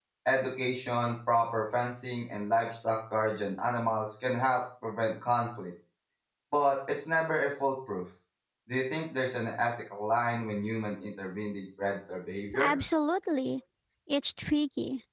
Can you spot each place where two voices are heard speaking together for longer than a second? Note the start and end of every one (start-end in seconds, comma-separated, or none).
none